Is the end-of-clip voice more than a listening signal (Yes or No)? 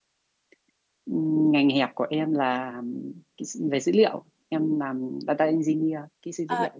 Yes